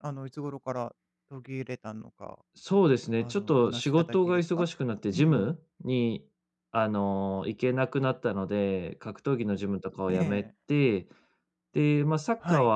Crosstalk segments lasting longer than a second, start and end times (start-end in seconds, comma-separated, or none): 3.2-4.7